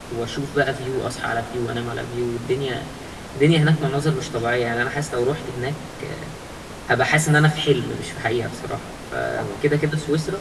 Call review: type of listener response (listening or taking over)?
listening